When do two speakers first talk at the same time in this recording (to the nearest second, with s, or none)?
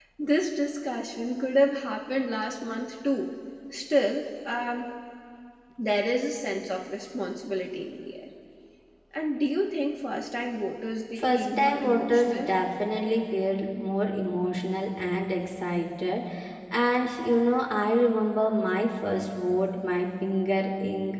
11 s